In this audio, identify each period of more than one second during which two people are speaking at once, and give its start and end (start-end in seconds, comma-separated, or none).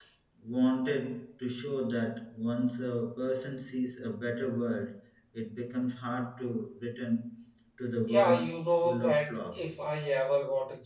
8.1-9.7